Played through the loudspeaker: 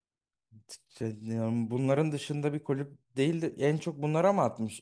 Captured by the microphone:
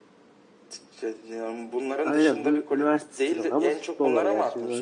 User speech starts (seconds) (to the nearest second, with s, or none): 2 s